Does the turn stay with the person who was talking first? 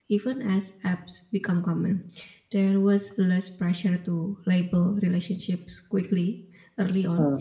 Yes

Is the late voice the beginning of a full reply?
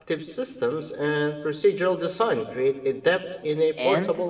Yes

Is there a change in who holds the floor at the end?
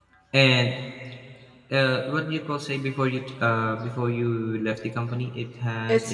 Yes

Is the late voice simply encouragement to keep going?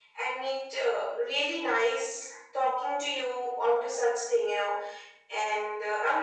Yes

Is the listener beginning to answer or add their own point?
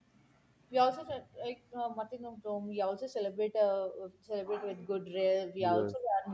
No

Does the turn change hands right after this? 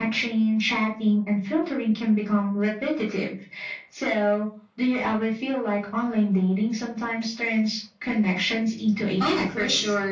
Yes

